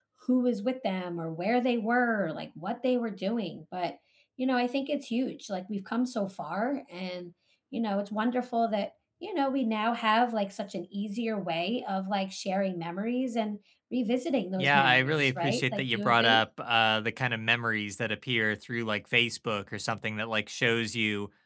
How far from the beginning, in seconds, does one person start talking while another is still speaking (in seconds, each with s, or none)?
14.6 s